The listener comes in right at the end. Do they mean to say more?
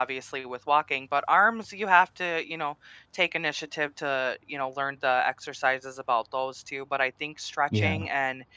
No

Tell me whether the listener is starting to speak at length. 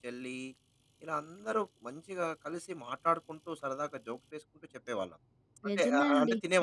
Yes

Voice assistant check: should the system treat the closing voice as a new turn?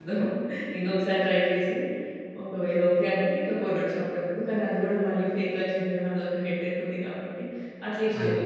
No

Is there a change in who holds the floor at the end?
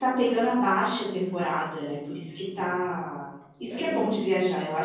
No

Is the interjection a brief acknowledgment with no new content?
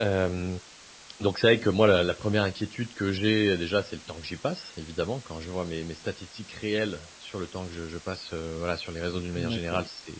No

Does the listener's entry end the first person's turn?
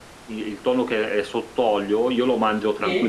No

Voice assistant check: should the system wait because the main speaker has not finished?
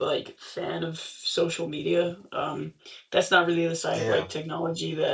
Yes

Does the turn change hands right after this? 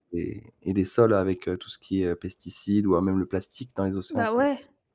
Yes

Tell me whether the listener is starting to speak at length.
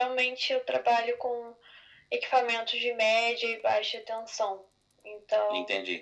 Yes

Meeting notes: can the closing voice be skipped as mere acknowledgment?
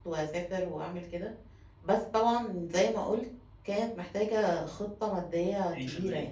No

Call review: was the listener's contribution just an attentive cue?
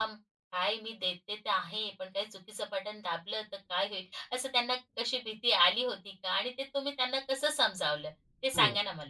No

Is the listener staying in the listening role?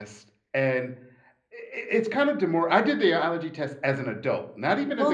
No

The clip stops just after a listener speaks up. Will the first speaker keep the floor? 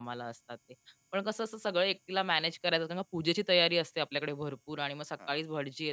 Yes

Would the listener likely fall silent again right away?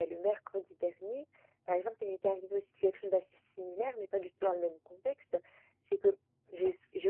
Yes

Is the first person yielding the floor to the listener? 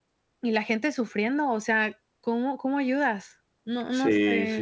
Yes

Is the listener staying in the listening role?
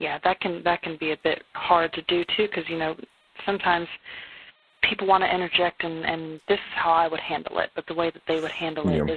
Yes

